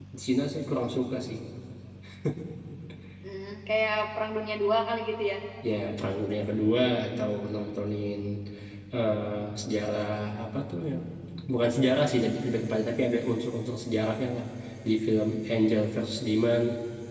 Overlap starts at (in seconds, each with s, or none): none